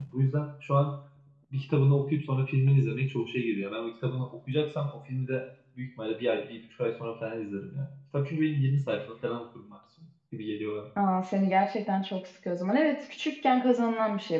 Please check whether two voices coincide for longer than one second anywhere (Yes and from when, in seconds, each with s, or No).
No